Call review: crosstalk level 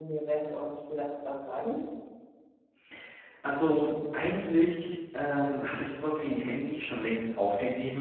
none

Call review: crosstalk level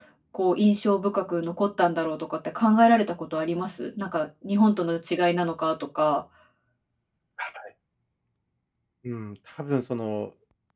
none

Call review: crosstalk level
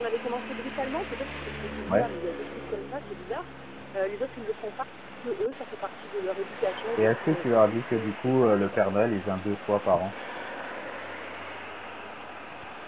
present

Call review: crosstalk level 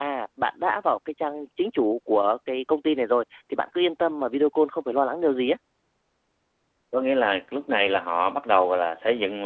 none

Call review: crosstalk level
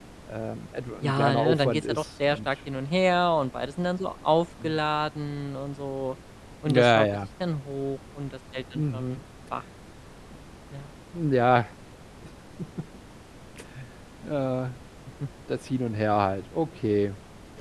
present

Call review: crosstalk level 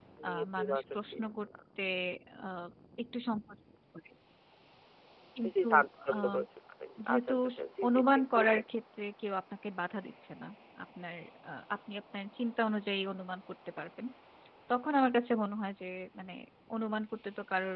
present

